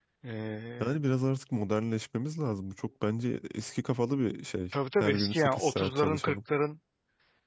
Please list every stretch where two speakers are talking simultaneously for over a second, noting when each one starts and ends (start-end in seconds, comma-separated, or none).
5.0-6.3